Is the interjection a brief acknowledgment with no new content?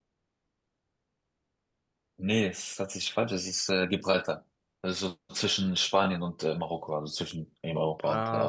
No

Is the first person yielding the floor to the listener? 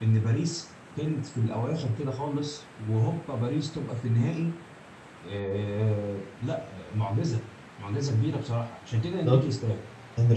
Yes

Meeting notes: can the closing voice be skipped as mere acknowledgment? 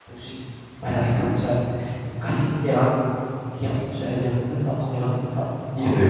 No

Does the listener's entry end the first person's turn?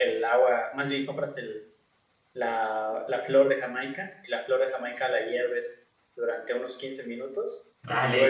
Yes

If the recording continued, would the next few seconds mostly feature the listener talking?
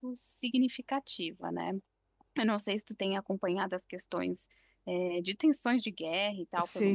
Yes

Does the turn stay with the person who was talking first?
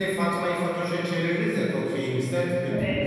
Yes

